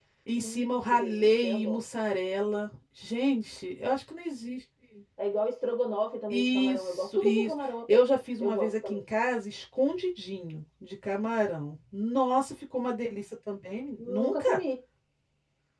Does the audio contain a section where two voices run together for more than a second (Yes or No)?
Yes